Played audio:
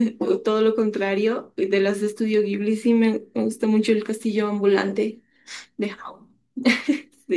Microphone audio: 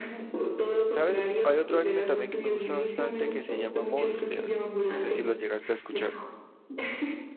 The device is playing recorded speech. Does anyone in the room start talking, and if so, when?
0.8 s

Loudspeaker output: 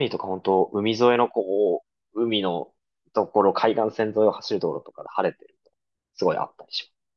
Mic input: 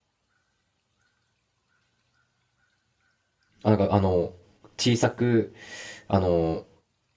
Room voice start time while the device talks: 3.6 s

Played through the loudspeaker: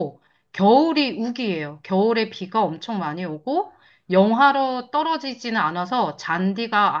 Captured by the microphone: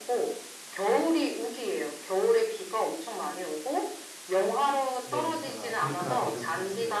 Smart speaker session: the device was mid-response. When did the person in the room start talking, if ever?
5.0 s

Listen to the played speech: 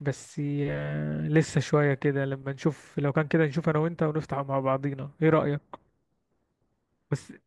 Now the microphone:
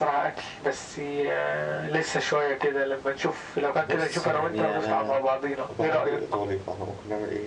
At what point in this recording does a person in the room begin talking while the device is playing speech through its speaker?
3.8 s

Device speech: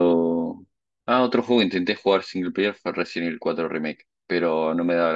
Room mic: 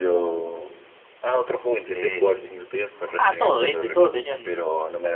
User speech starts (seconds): 1.9 s

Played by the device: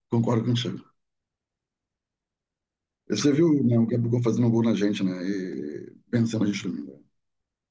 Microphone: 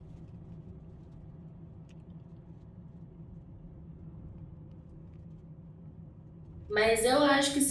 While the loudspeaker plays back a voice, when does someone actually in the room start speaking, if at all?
6.7 s

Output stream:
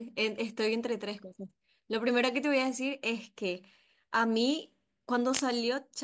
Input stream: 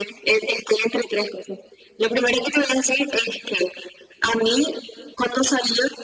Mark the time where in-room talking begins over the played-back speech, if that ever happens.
none

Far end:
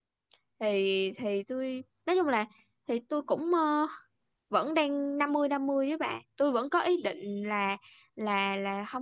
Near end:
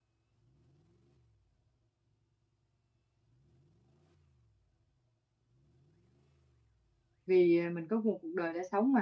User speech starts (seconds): 7.3 s

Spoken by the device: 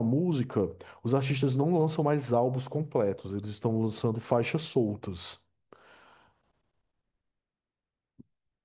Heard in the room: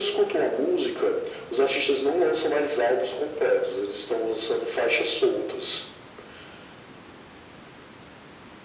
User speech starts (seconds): none

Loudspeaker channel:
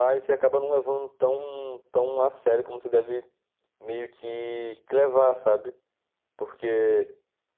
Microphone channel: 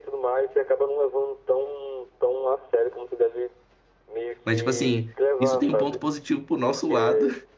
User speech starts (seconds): 4.4 s

